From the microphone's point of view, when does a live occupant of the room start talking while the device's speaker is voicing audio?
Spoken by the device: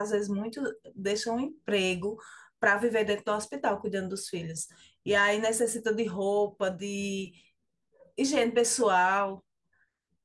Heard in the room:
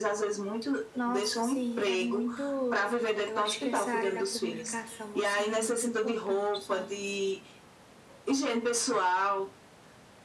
1 s

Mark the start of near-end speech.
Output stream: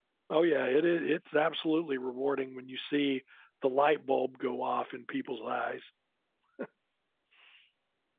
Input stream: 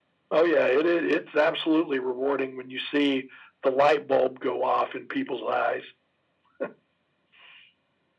none

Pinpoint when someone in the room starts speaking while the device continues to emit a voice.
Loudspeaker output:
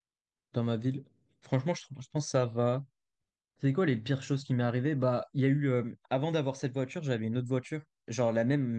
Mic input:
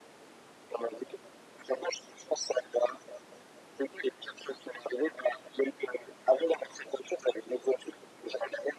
none

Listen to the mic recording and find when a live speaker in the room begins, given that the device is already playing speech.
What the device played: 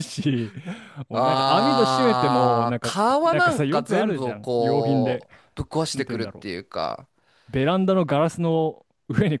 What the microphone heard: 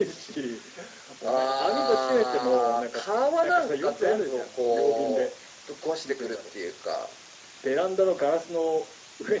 none

